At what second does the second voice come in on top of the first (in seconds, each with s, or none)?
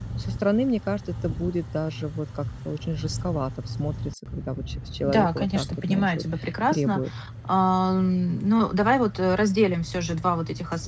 5.0 s